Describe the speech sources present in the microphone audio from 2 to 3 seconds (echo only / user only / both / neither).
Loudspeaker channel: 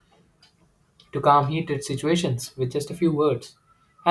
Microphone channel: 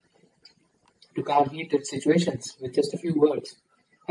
echo only